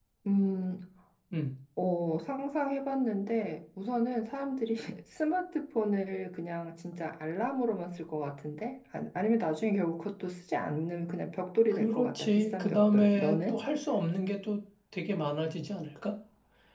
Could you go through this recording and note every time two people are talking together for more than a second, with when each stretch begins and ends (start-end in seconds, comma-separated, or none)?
11.7-13.6